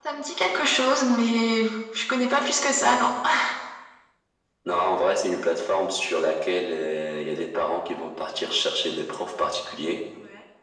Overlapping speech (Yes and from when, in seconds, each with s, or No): No